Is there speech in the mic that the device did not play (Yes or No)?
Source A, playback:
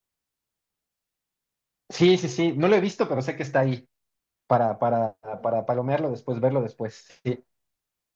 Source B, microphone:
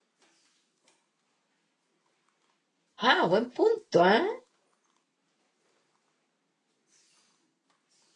Yes